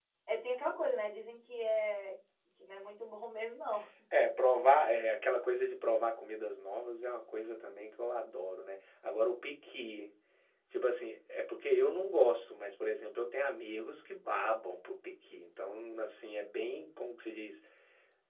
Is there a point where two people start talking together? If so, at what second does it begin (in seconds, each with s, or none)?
none